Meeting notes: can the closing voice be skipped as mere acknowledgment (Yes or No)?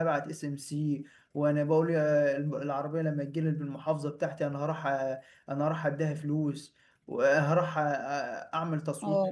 Yes